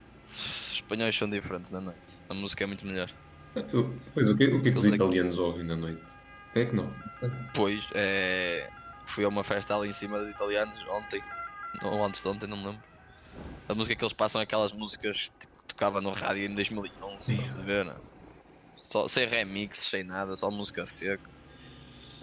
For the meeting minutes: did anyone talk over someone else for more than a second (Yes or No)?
No